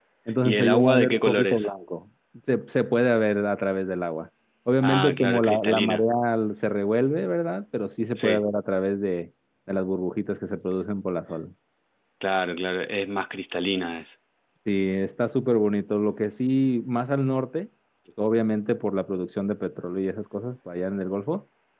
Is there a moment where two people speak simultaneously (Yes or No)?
Yes